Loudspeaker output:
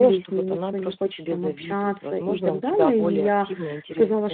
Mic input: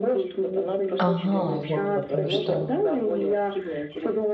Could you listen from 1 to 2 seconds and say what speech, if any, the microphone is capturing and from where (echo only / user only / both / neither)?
both